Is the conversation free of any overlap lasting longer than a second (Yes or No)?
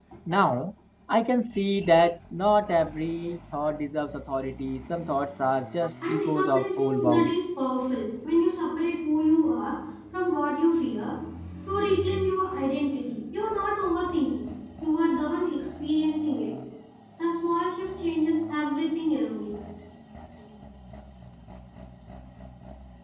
No